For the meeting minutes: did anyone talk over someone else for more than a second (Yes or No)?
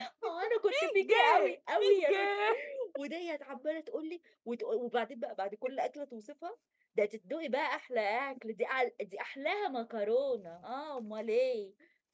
Yes